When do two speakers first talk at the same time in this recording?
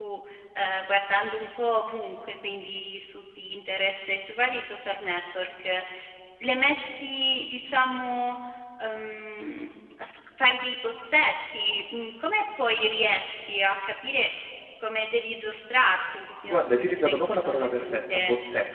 16.5 s

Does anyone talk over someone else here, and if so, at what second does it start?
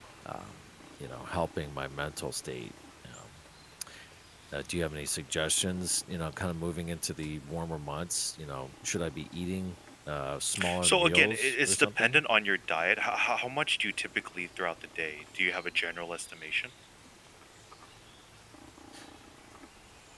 10.6 s

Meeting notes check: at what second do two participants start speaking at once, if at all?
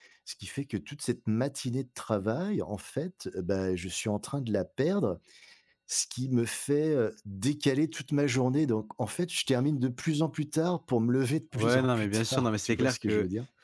11.6 s

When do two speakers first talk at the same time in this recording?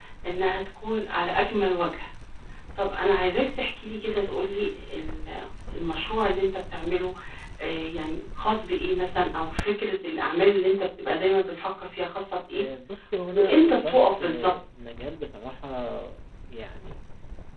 13.3 s

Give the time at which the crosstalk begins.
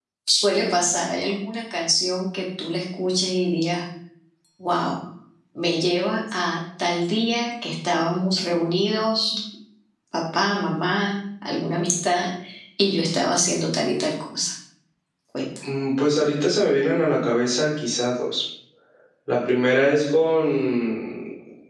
none

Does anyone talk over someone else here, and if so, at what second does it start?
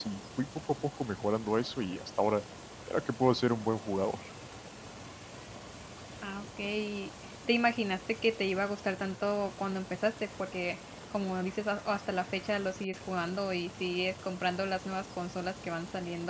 none

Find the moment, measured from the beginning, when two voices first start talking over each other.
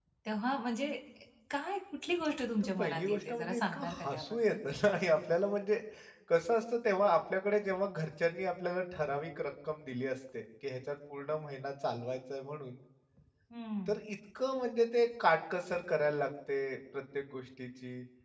2.8 s

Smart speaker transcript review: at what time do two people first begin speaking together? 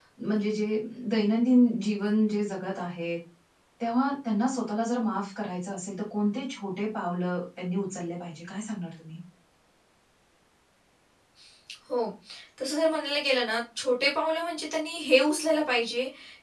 none

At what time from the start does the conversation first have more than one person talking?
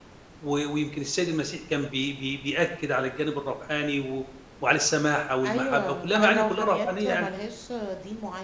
5.4 s

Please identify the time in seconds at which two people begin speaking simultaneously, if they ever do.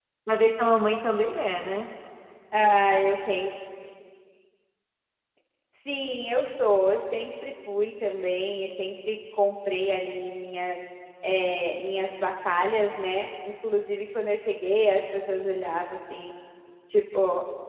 none

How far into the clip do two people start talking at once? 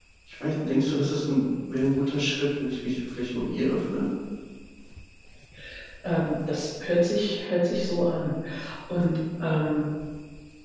none

